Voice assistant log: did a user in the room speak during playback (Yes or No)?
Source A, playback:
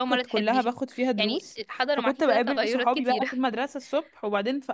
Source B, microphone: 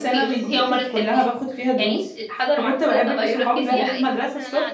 Yes